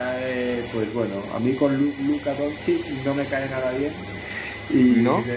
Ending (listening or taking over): listening